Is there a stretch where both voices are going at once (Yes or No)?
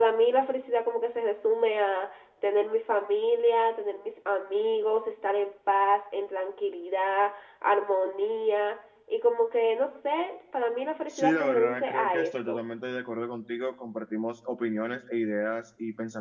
Yes